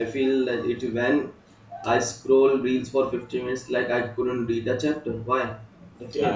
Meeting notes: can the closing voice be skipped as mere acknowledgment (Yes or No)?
No